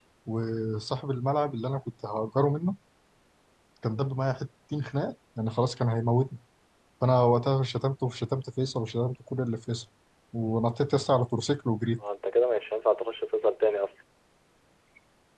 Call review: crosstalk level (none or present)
none